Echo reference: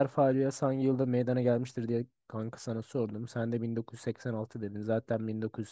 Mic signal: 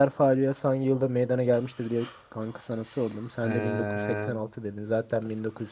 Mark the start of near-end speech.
3.4 s

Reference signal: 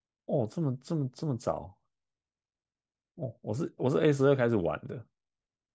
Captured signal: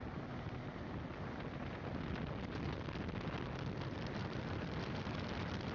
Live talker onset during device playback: none

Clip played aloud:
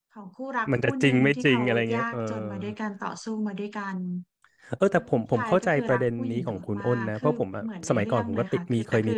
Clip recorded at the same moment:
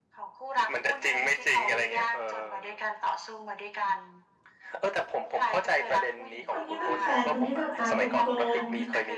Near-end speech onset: 6.5 s

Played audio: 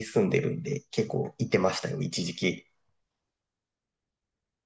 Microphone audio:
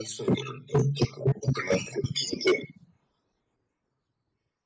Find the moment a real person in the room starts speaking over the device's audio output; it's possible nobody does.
none

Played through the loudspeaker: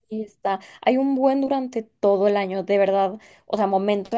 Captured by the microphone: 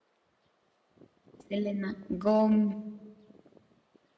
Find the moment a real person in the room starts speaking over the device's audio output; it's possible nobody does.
1.5 s

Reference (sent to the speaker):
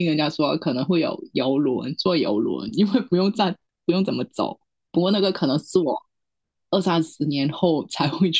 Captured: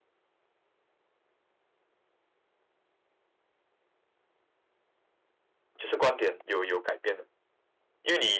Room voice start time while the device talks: 5.8 s

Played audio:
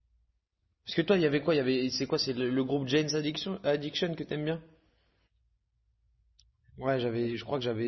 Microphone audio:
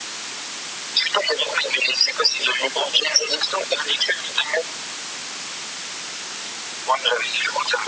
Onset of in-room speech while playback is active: none

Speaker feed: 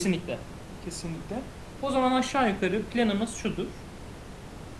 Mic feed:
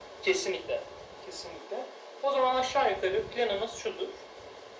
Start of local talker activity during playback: none

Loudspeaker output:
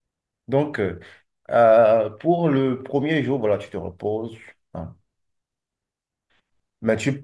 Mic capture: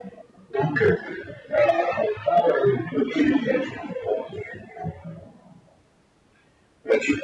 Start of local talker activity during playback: none

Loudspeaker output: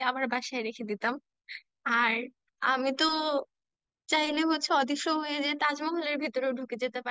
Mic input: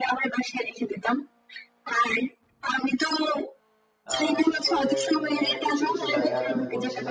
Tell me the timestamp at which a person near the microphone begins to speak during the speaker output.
4.1 s

